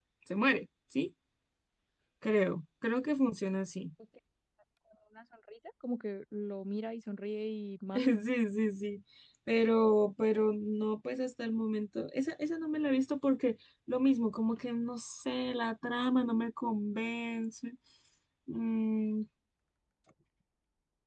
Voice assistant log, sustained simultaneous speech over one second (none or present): none